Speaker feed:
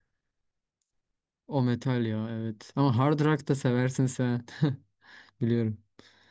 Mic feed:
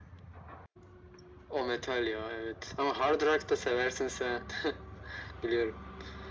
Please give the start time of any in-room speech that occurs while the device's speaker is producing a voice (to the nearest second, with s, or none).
none